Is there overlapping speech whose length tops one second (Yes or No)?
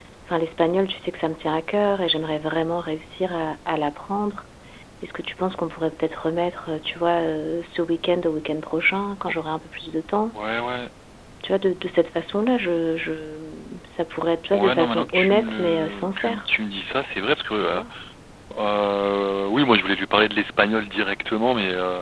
Yes